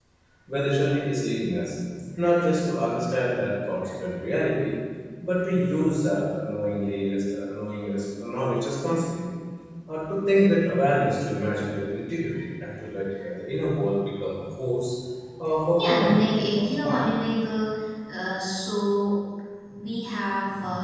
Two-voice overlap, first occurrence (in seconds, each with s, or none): 15.7 s